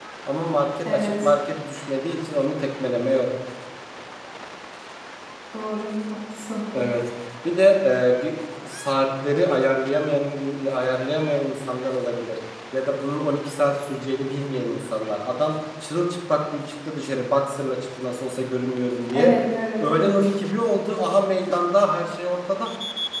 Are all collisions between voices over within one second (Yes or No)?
Yes